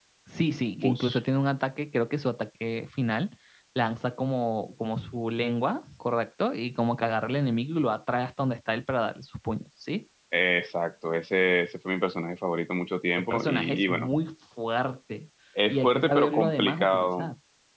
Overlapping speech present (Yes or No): Yes